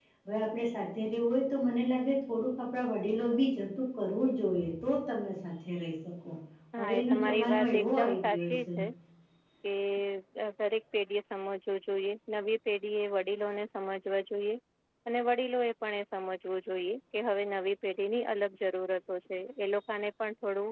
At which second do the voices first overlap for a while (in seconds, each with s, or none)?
6.8 s